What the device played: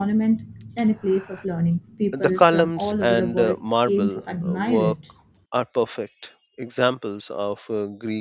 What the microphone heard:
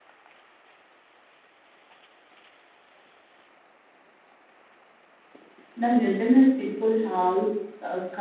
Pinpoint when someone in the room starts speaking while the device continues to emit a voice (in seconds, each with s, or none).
5.8 s